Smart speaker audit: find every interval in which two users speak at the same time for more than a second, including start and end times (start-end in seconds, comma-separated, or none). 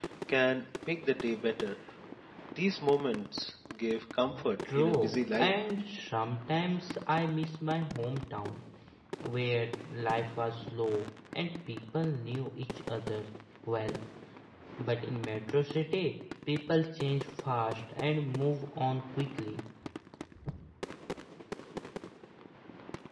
4.3-5.6